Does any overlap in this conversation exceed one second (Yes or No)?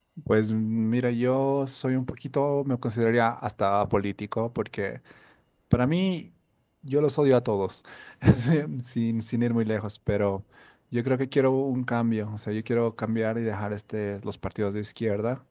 No